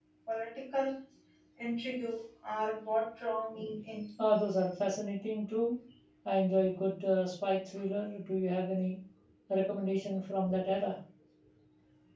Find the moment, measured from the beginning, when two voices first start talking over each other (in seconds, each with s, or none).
none